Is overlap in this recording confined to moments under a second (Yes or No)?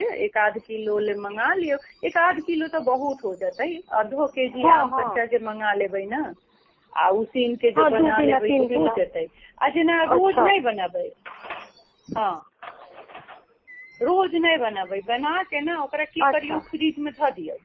No